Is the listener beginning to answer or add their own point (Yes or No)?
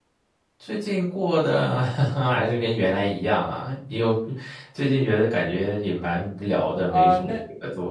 Yes